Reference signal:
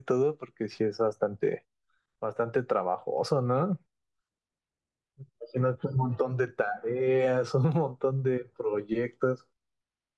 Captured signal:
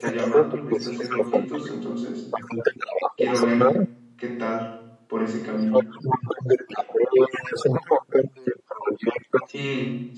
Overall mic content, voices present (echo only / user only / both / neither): both